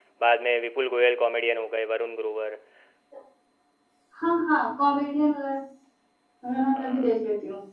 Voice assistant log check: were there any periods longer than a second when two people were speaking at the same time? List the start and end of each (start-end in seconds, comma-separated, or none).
none